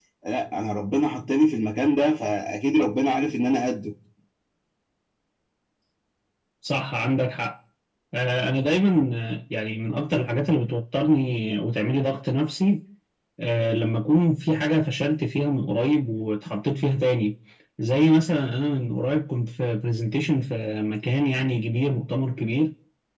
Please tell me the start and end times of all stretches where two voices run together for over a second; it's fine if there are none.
none

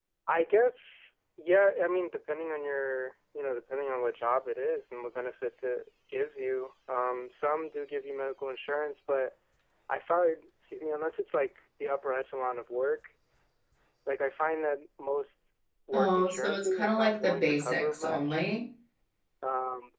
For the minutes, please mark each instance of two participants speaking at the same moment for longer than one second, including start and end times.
15.9-18.5

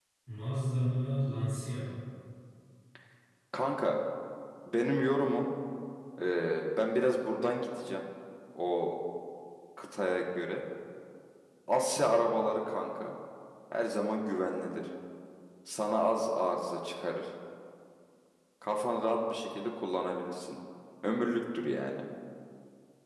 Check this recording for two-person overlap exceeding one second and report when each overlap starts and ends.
none

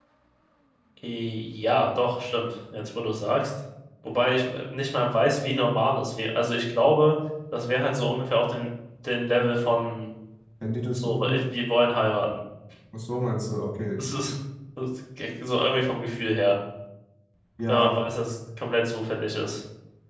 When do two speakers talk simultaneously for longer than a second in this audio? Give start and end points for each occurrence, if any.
none

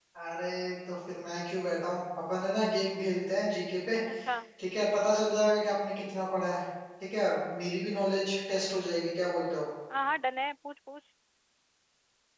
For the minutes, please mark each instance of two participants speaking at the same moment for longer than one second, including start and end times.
none

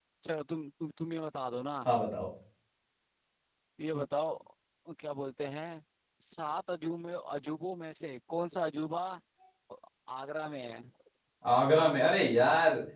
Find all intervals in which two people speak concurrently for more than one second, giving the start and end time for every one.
none

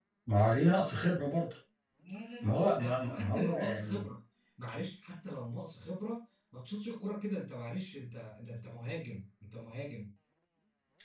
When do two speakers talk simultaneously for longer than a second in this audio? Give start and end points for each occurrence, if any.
2.4-4.0

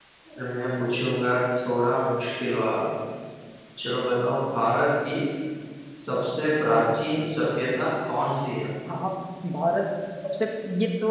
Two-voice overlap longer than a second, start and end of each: none

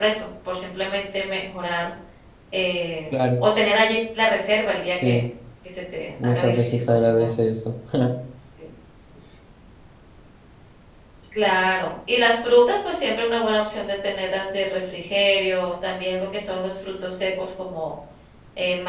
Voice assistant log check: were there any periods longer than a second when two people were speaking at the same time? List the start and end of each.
6.1-7.3

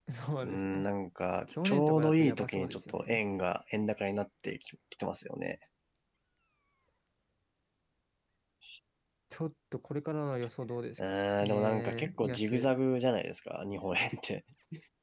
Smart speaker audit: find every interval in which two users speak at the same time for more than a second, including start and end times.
1.6-3.2, 11.0-12.7

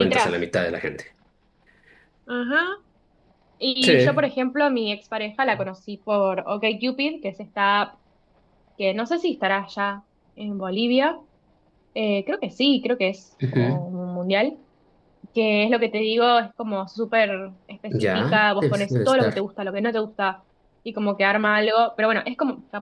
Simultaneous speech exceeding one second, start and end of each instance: 17.9-19.4

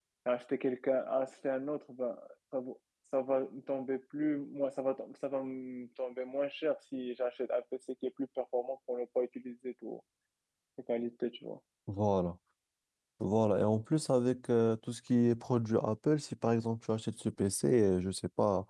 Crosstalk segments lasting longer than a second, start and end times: none

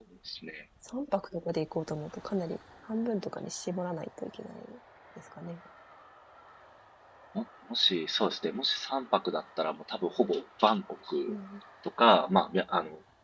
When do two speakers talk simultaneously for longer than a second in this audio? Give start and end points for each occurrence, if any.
none

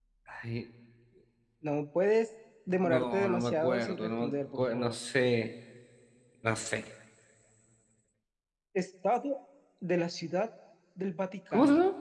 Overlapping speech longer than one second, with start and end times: 2.8-5.0

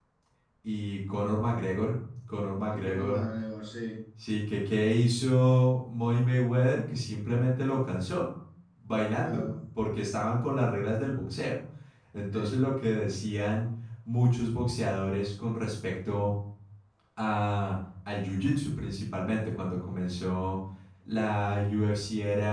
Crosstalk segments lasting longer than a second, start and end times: none

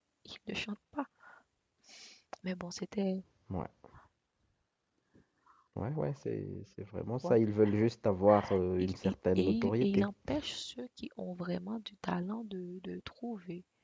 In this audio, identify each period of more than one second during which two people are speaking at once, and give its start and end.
8.8-10.1

